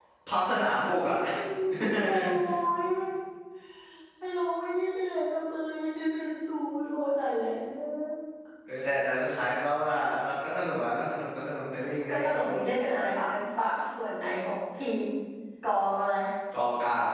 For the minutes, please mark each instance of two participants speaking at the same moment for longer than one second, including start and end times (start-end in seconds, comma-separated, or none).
none